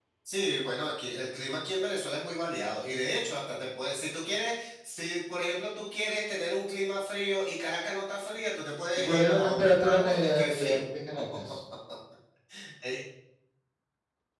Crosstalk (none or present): present